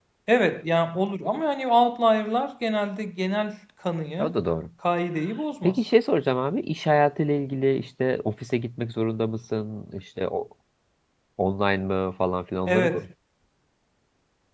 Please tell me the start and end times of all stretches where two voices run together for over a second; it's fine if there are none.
none

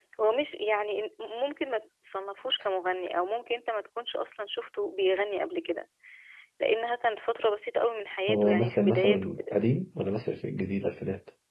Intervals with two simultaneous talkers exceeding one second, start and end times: 8.3-9.6

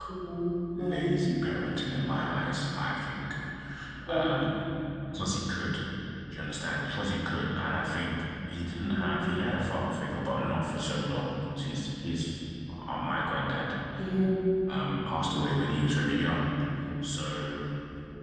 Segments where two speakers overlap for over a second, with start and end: none

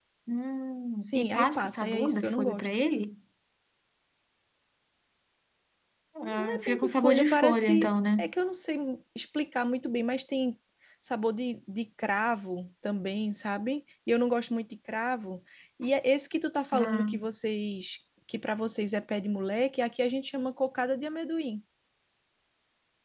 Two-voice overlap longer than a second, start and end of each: 1.0-2.8, 6.2-8.2

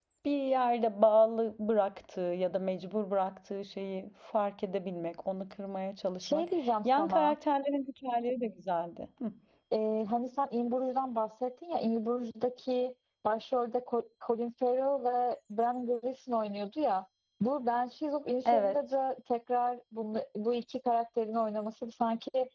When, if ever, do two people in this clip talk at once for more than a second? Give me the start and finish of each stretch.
none

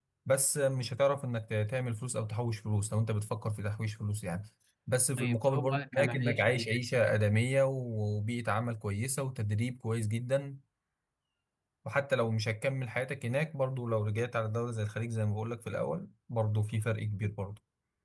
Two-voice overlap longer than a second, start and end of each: 5.2-6.7

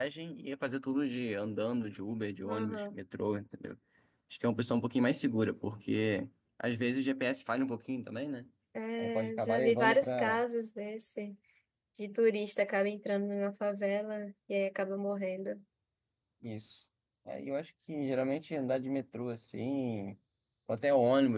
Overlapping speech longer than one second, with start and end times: 9.0-10.4

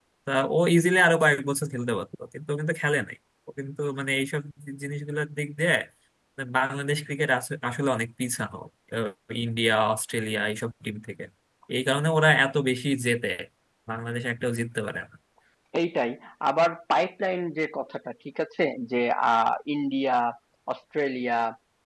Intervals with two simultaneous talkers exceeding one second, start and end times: none

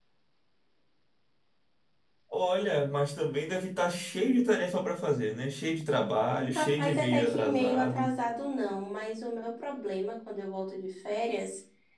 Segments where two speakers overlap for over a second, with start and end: 6.6-8.1

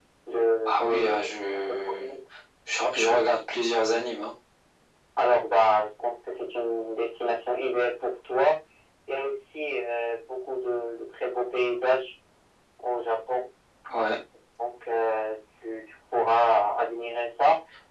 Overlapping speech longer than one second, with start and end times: 0.6-2.0

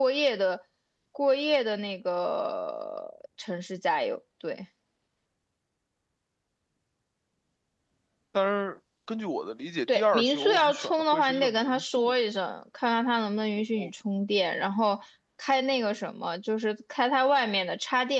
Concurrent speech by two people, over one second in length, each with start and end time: 9.9-12.1

